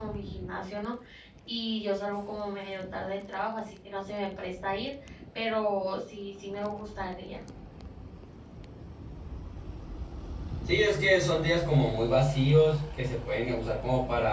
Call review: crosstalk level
none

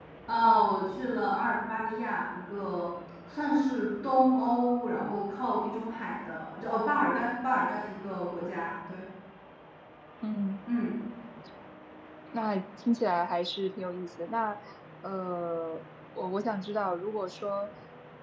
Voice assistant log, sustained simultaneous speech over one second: none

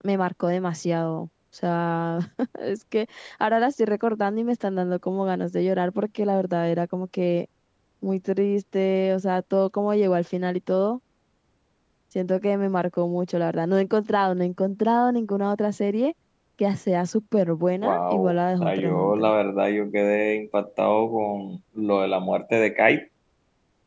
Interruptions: present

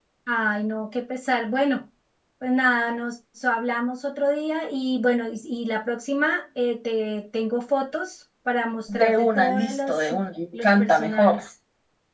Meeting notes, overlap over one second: present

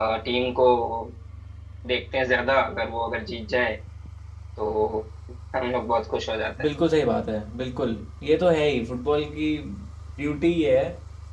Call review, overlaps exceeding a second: none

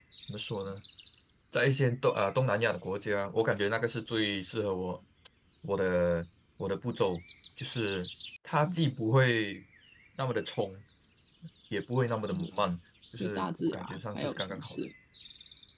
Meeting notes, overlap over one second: present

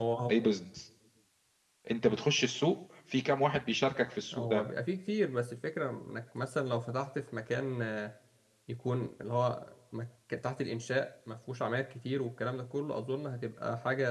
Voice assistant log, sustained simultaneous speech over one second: none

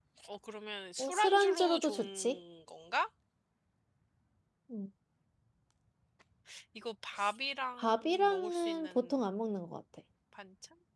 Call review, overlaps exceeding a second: present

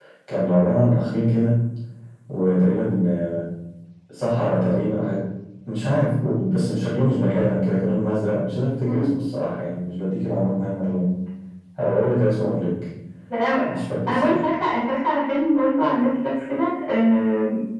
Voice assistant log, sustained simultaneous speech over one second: none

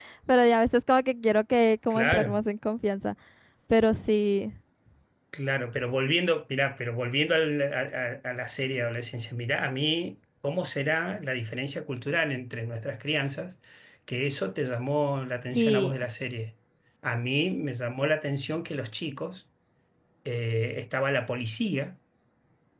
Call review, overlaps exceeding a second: none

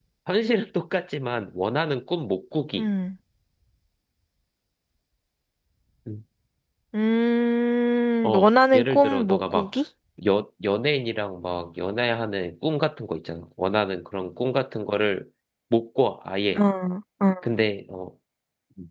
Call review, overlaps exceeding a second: present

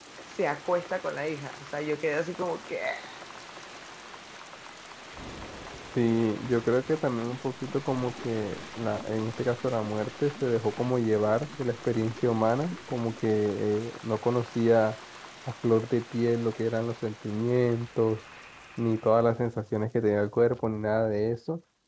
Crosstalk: none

